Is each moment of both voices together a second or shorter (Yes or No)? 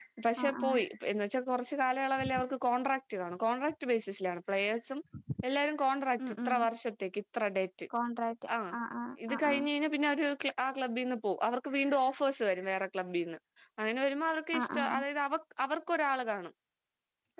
Yes